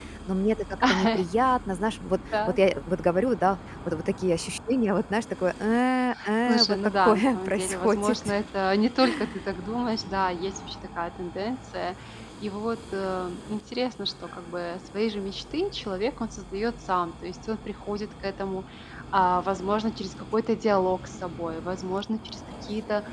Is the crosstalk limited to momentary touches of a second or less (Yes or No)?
No